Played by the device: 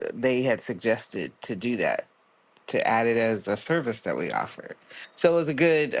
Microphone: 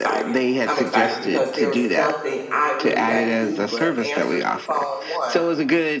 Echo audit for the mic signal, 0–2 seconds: both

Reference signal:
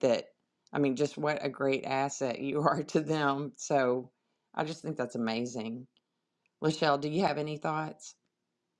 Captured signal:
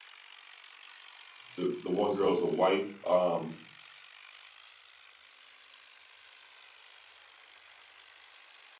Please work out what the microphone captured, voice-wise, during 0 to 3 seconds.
user only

